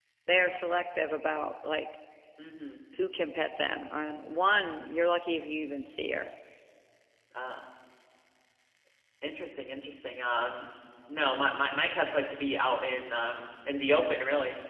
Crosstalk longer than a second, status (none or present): none